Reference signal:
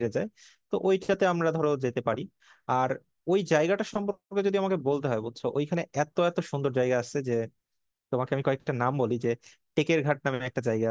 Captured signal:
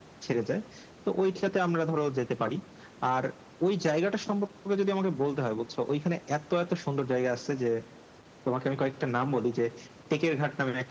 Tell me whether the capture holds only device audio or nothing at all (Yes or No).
Yes